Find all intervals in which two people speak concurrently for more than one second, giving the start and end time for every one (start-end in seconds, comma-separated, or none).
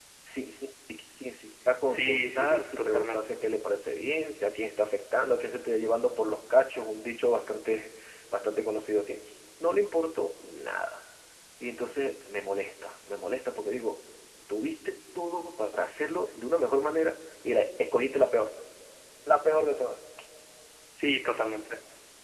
1.9-3.2